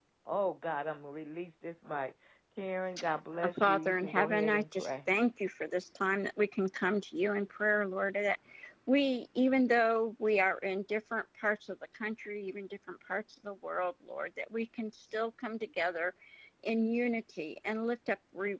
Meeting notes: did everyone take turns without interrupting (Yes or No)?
No